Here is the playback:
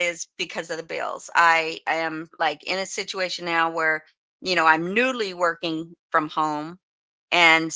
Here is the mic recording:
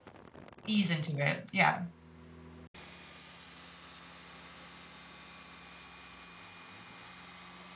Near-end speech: present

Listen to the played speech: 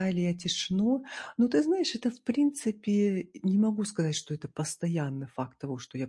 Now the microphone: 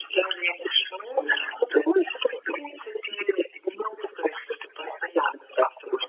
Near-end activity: present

